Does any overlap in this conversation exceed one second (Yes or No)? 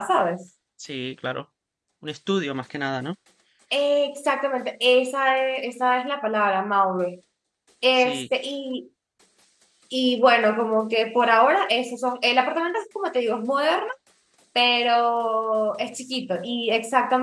No